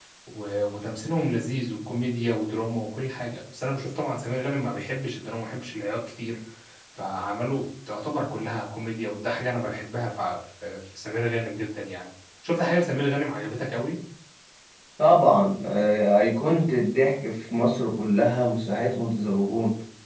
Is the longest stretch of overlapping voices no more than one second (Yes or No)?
Yes